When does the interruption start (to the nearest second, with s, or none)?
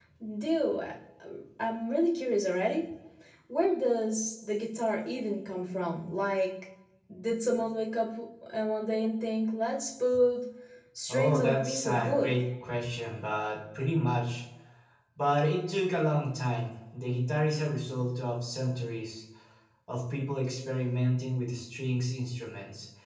11 s